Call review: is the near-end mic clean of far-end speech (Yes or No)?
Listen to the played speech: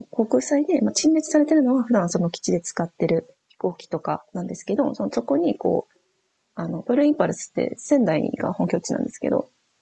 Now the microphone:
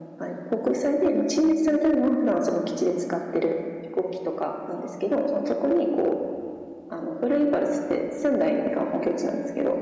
No